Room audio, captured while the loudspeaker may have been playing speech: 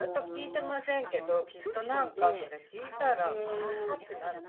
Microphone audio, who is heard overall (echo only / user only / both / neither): both